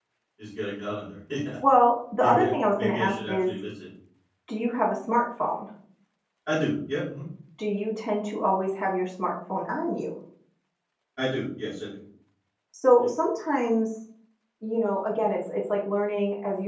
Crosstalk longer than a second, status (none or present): present